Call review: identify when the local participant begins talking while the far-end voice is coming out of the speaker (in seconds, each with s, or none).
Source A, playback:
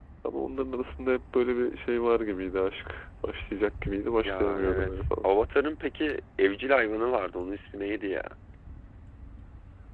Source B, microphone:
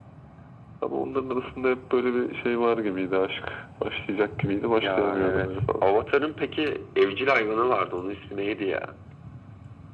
none